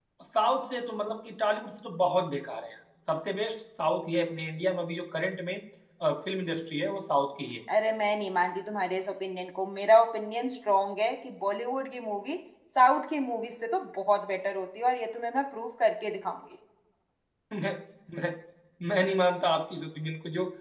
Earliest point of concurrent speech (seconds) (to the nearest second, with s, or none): none